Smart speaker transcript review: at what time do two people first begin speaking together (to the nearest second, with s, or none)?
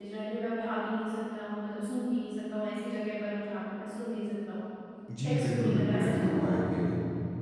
5 s